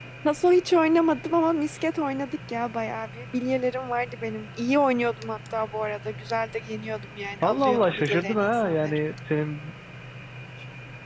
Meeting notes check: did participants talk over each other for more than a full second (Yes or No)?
Yes